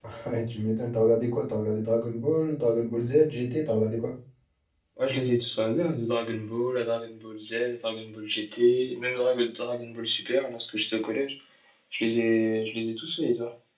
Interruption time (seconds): none

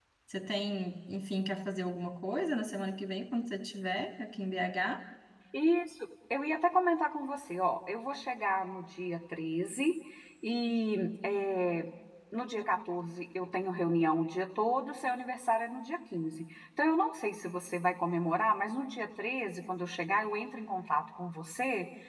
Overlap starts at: none

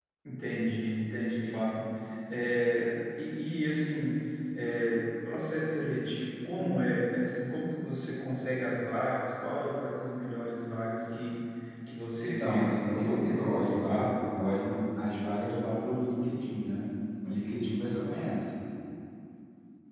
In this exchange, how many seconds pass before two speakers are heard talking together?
12.2 s

